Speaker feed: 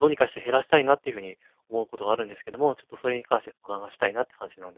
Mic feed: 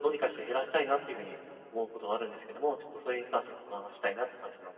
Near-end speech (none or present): none